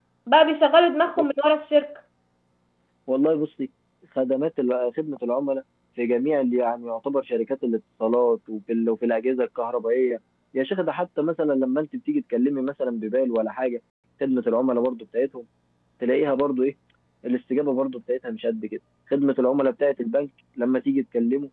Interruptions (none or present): none